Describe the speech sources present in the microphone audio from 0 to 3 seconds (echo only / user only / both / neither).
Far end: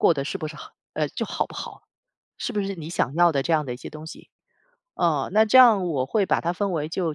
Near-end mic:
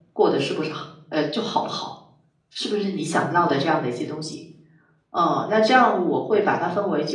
echo only